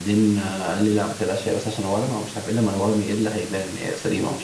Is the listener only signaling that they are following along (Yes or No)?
No